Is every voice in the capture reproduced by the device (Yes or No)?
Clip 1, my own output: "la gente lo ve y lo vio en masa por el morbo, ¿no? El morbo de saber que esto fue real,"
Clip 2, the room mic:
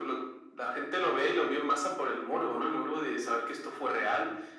Yes